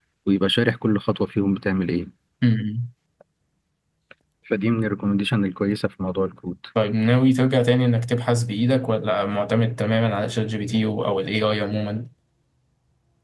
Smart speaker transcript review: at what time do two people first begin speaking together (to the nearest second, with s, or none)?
none